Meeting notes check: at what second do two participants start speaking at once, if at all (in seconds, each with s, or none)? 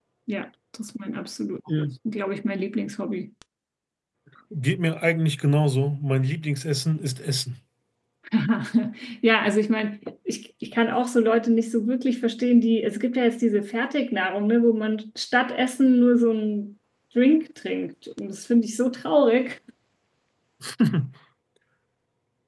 none